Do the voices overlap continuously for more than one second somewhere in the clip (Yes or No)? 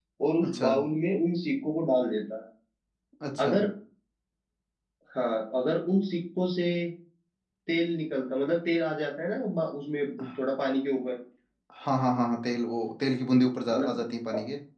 No